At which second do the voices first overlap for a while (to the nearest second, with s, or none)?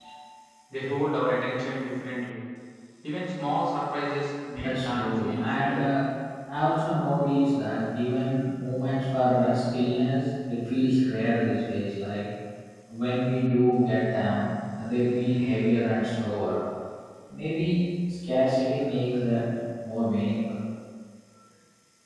5 s